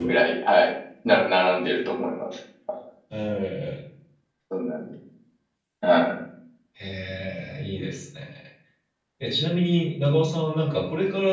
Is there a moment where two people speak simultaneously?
No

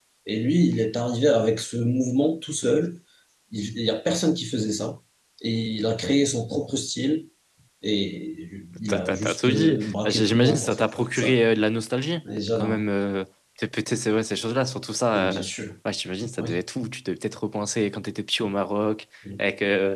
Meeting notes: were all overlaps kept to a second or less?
No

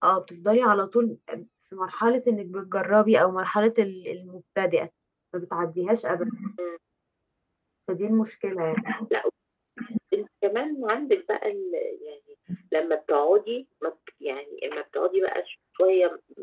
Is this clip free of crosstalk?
Yes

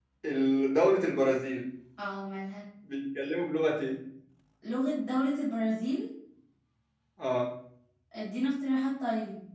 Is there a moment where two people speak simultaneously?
No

